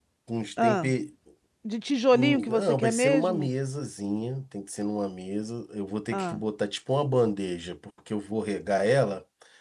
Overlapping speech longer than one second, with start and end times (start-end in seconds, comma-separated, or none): 2.1-3.5